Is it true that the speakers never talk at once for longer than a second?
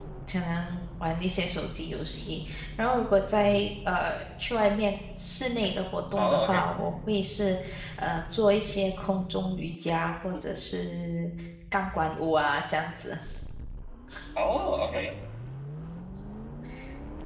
Yes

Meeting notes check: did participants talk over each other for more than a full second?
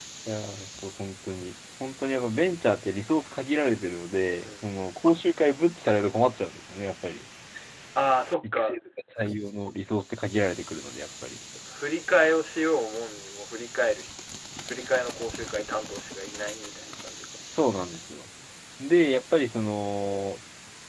No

